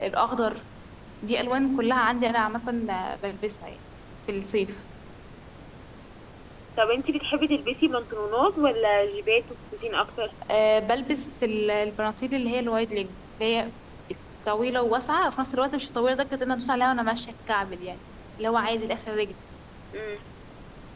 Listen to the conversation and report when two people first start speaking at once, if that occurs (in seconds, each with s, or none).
none